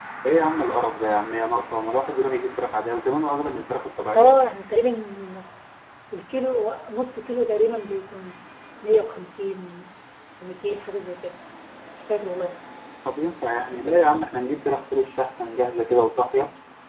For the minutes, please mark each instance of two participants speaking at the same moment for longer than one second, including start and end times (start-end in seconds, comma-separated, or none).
none